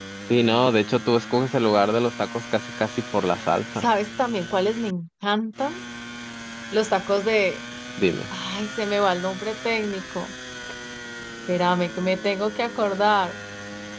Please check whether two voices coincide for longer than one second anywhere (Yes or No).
No